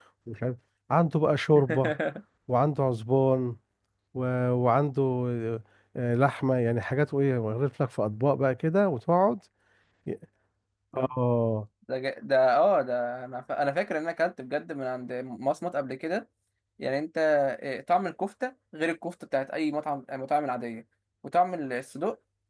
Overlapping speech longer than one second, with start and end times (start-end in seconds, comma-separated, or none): none